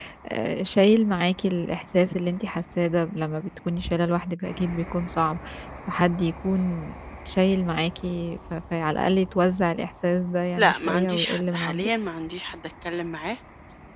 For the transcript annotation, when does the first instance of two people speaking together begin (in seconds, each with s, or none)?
10.6 s